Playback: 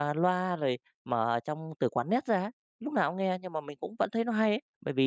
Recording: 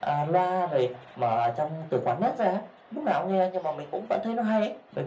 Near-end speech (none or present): none